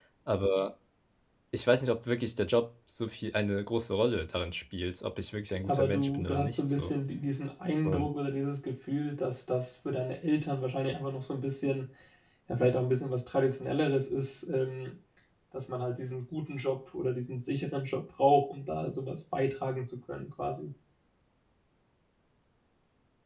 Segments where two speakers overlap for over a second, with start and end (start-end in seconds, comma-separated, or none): 5.5-6.9